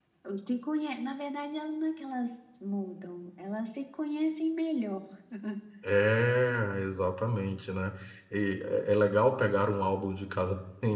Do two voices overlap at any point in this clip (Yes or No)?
No